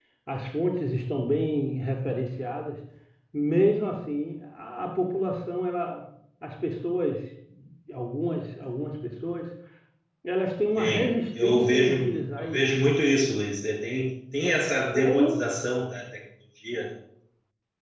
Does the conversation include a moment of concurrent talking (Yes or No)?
Yes